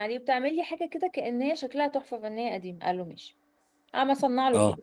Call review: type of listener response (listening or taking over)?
listening